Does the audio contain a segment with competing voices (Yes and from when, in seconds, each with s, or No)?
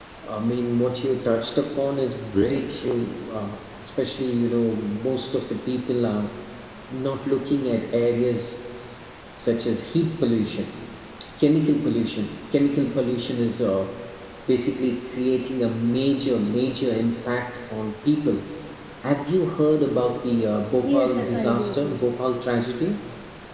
Yes, from 20.8 s